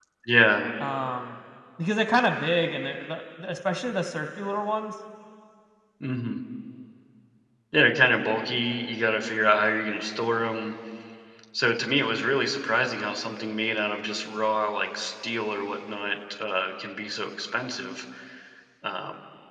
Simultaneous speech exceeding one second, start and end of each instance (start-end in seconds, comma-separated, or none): none